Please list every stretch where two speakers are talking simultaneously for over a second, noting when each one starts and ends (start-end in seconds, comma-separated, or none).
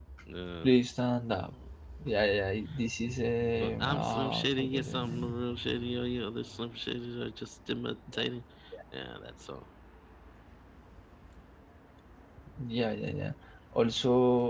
3.4-5.3